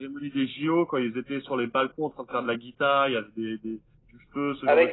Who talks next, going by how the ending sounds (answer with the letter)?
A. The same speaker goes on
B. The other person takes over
B